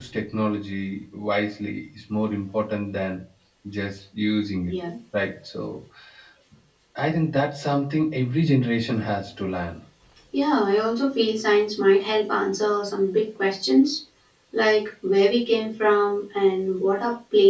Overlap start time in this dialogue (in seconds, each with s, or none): none